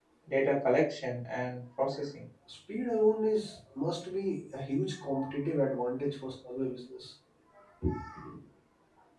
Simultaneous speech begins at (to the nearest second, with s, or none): none